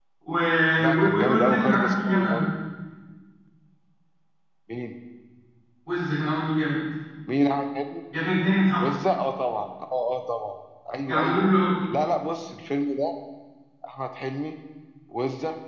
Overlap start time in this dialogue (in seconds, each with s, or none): 0.9 s